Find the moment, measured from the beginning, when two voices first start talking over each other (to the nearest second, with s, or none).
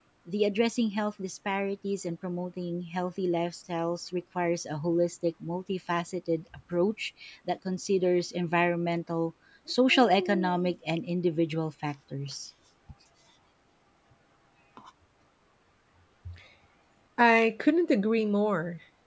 none